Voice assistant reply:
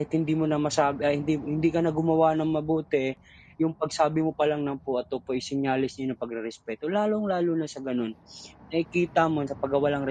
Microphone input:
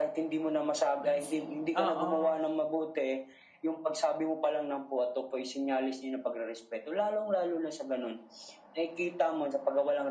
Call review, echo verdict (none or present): present